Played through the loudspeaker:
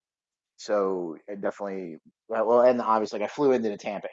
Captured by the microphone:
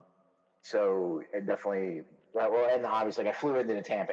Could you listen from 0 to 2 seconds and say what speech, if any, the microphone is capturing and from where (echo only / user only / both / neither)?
echo only